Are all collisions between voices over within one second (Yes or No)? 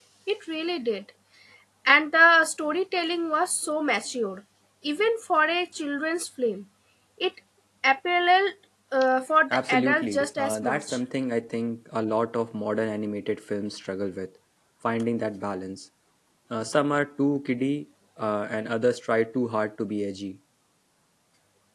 No